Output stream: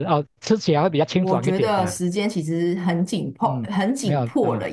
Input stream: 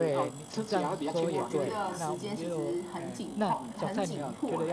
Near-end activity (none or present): present